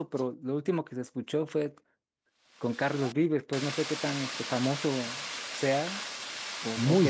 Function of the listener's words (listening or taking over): taking over